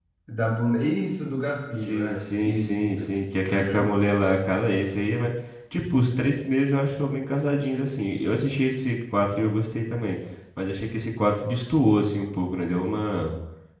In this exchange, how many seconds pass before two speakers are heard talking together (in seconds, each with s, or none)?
1.7 s